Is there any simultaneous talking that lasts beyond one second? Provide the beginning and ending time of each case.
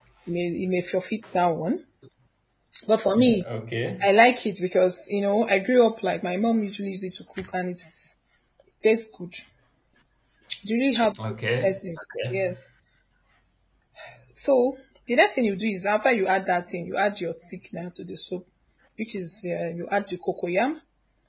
none

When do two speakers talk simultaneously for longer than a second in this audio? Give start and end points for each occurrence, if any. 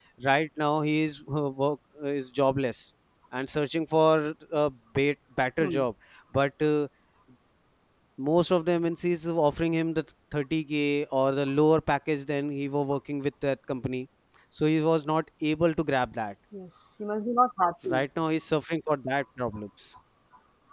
none

